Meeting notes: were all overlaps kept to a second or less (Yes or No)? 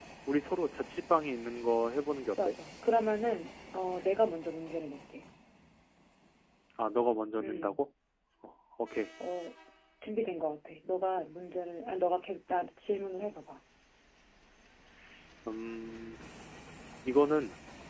Yes